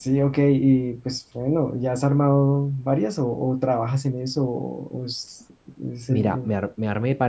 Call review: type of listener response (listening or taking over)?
taking over